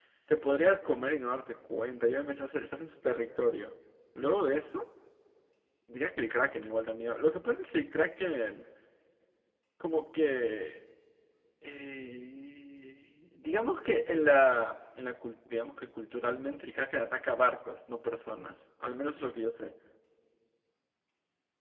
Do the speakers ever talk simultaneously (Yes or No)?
No